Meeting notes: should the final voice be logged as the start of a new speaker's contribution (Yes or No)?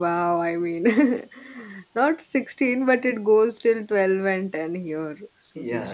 Yes